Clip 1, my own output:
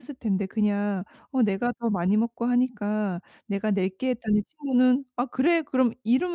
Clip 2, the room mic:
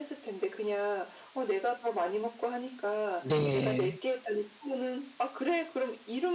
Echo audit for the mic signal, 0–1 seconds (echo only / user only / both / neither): echo only